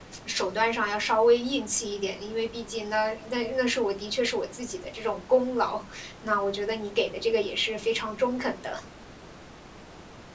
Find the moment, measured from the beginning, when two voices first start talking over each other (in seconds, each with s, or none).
none